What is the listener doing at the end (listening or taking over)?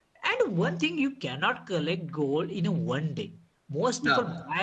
listening